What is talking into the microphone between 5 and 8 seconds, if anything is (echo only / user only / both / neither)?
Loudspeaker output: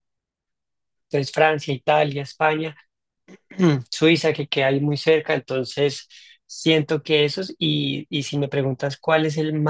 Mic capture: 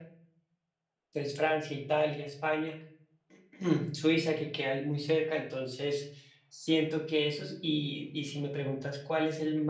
echo only